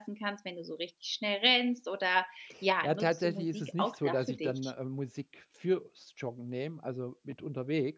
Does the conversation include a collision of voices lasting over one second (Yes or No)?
Yes